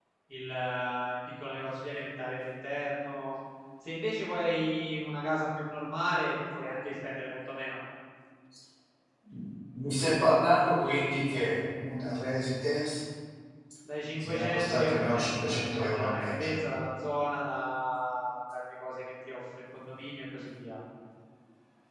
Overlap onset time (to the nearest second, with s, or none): 14 s